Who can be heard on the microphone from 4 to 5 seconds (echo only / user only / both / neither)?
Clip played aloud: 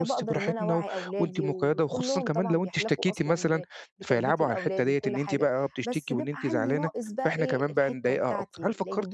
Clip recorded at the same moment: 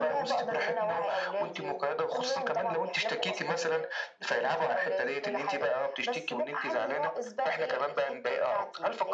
echo only